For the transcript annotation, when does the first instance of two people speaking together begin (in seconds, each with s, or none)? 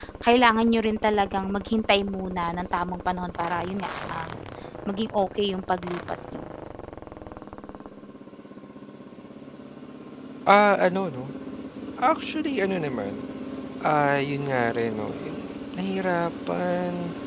none